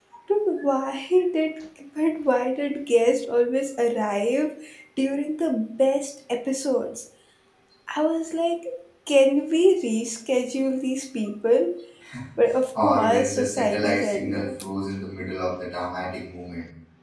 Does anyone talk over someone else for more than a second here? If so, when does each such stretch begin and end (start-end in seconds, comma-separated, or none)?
12.8-14.5